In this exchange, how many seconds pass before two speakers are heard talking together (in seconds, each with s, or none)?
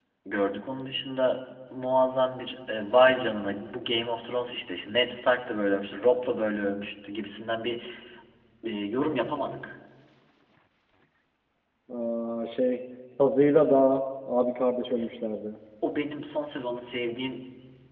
none